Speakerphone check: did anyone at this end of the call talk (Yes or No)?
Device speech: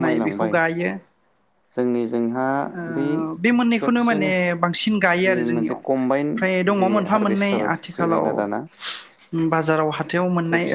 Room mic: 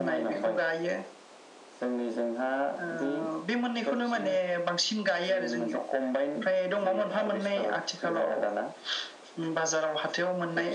No